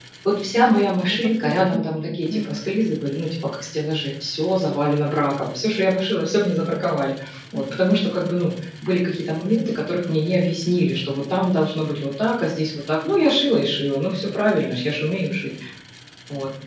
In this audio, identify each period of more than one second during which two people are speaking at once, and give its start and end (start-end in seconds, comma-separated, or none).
1.0-2.6